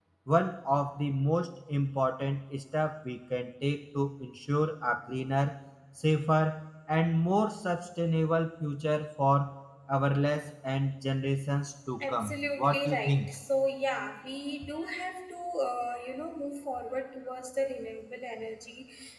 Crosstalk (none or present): present